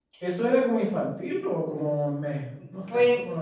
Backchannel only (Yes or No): No